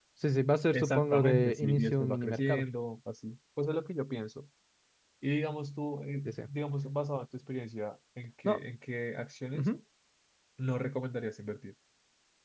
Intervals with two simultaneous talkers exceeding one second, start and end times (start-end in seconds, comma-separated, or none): 0.7-2.6